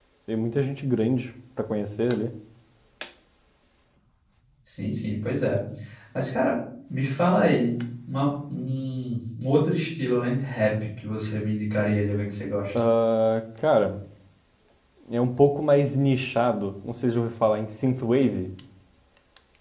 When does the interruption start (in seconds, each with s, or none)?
none